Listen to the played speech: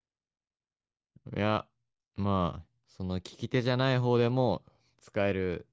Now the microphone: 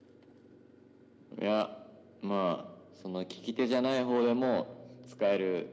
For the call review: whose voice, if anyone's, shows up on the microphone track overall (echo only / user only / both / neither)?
echo only